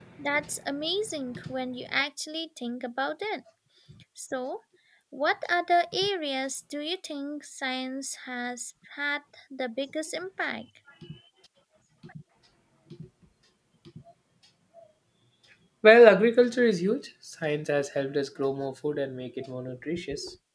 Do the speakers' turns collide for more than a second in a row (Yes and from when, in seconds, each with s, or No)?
No